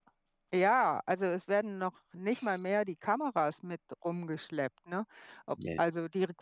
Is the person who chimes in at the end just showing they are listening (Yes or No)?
Yes